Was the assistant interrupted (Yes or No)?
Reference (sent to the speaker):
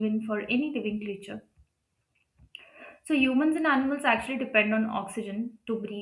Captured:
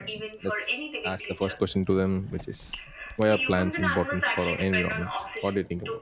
Yes